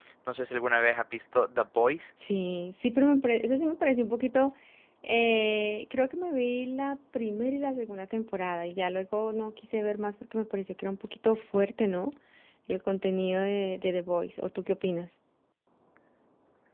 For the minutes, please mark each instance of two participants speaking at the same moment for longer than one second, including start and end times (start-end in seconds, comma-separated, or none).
none